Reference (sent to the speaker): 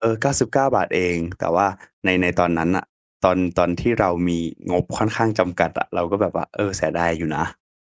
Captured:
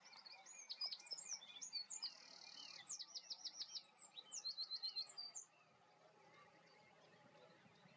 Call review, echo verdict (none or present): none